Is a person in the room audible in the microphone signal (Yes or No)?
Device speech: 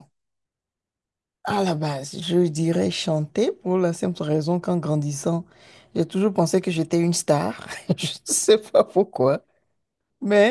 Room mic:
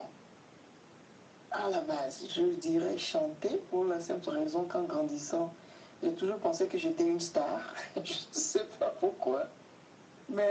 No